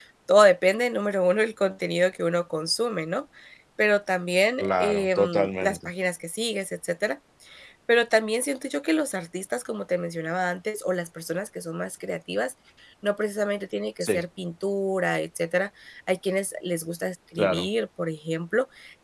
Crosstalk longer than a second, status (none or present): present